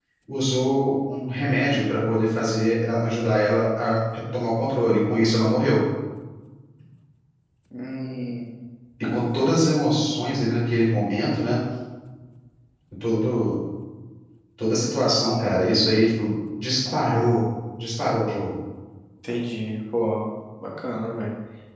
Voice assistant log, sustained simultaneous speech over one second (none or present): none